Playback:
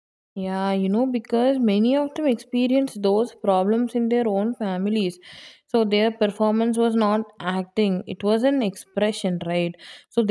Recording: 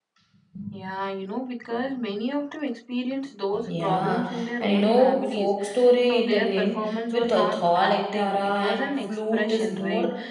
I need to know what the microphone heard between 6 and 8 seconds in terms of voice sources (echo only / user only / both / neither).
both